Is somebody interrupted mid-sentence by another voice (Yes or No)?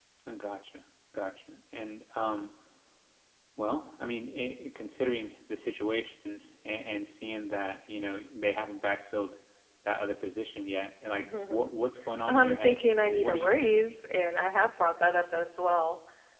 Yes